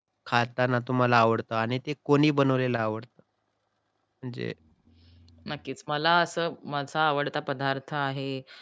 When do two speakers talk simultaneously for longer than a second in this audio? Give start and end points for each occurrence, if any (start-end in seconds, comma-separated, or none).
none